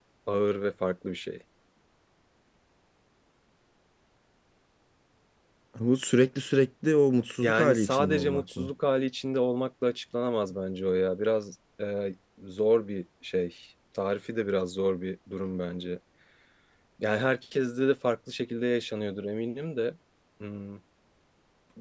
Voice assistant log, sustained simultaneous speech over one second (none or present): present